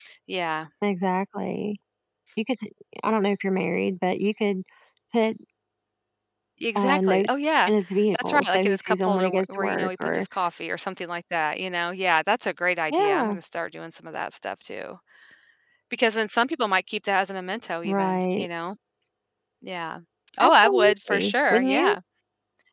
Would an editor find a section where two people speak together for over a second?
Yes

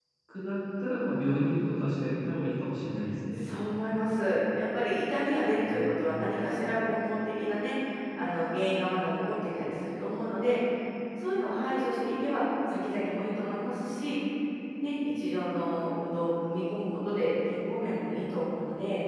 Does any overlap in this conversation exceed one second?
No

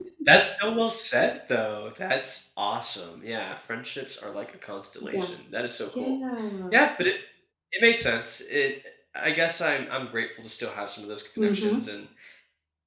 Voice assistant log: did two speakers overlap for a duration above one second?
No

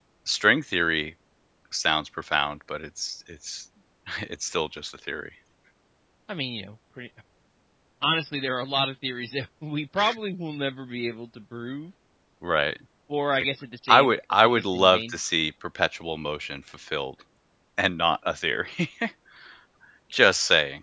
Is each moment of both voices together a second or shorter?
No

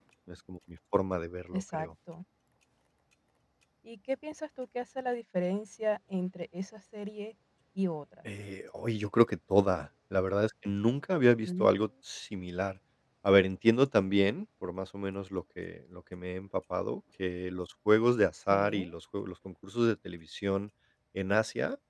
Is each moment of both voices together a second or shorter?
Yes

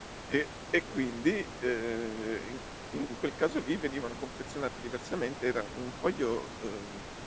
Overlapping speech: No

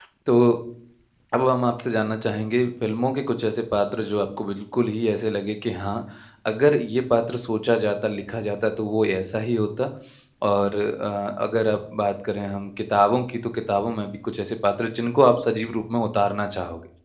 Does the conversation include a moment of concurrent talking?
No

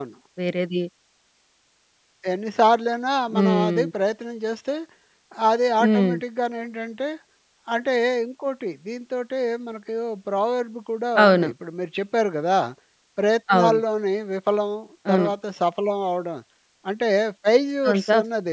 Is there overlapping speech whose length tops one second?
No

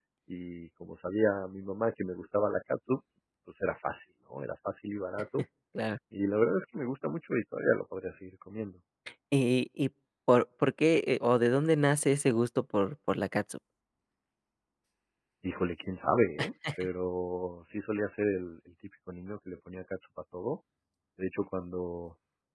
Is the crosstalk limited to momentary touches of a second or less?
Yes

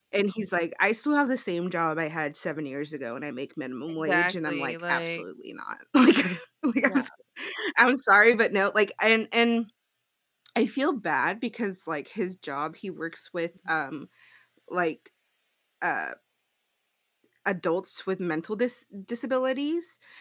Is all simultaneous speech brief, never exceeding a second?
No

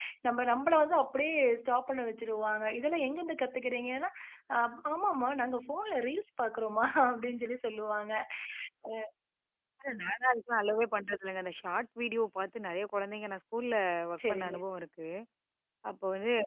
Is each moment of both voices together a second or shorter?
Yes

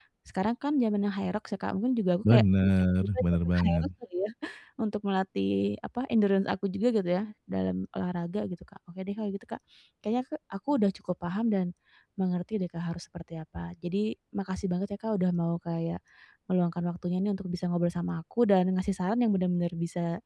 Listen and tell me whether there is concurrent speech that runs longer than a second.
Yes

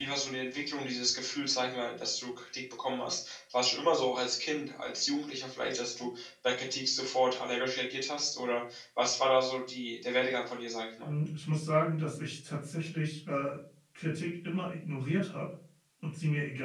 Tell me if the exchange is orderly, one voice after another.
Yes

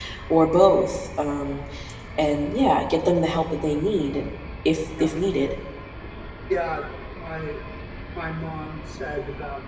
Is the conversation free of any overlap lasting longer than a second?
Yes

